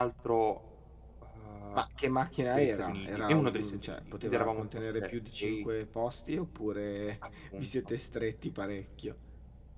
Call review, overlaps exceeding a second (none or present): present